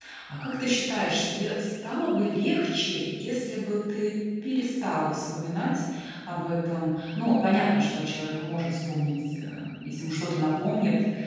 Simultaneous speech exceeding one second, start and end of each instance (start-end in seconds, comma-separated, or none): none